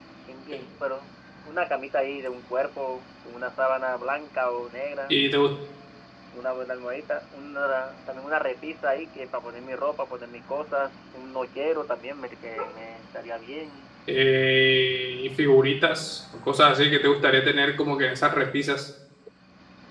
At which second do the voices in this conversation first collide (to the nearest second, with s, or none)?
none